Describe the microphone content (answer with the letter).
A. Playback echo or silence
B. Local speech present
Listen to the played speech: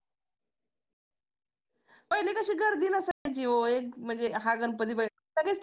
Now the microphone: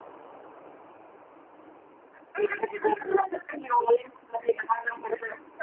A